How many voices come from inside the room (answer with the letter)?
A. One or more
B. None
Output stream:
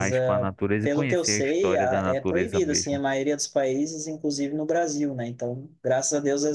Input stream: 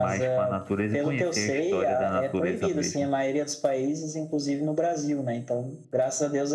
B